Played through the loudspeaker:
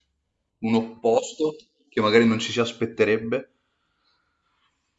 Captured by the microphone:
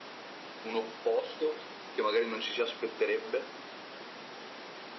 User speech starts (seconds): none

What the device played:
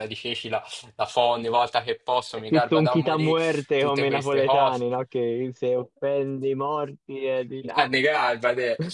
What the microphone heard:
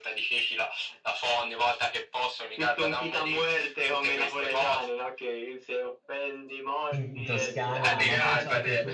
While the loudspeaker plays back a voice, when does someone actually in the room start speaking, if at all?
6.9 s

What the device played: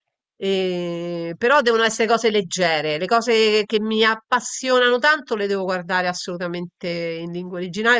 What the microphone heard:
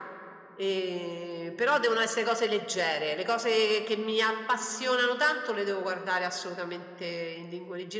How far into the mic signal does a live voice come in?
none

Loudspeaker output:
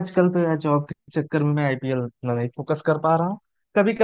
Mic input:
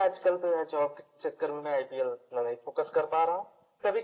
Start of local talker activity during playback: none

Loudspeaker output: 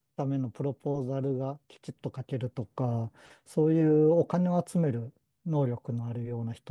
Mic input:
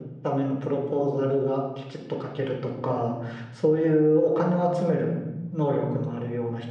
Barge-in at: none

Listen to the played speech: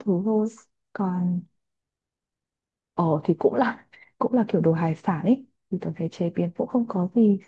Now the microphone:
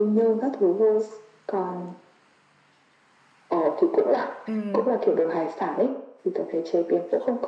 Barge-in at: 4.5 s

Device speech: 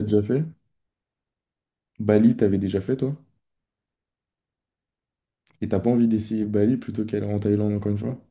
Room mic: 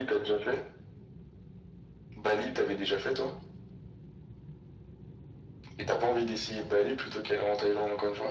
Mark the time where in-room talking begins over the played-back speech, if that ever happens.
none

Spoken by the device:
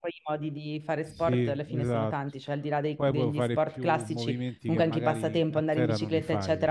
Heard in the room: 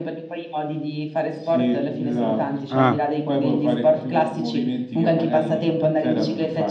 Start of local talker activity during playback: 2.7 s

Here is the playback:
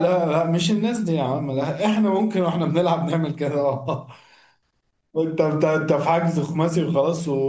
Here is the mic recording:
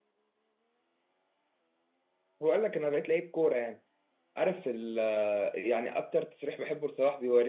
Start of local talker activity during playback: 2.4 s

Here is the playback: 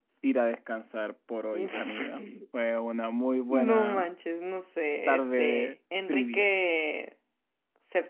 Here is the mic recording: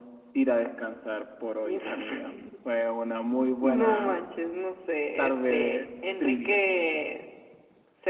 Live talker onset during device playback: none

